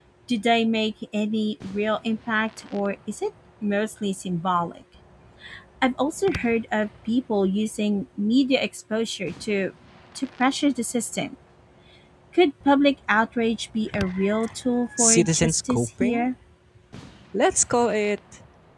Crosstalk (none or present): present